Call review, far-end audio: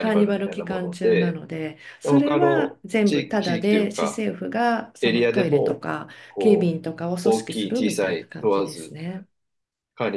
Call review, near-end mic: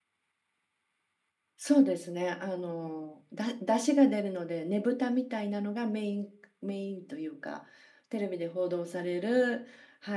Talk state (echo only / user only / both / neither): user only